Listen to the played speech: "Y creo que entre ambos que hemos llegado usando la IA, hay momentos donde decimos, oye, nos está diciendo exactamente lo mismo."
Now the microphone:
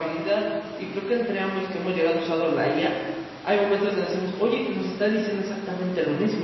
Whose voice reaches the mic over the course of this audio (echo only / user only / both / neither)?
echo only